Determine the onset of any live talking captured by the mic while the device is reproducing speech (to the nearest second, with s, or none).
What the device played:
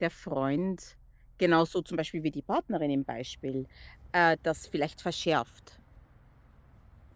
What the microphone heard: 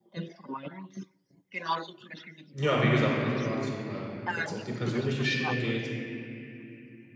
3 s